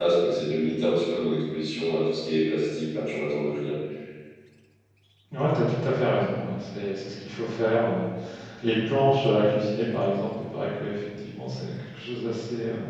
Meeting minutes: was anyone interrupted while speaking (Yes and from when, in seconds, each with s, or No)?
No